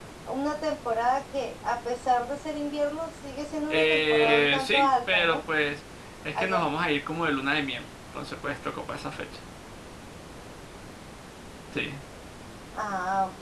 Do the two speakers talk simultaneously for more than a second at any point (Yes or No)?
Yes